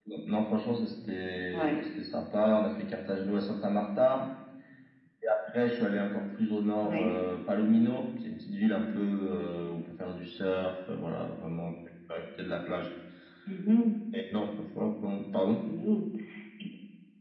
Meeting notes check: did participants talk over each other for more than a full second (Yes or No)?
No